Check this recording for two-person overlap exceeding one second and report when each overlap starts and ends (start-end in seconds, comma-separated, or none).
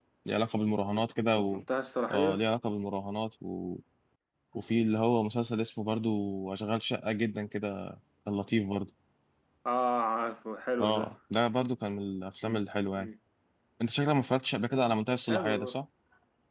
none